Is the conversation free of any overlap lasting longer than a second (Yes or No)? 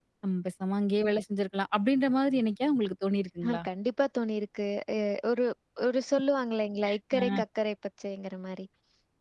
Yes